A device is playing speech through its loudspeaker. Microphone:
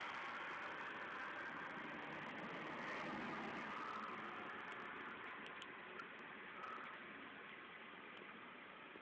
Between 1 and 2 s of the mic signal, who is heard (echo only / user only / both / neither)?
neither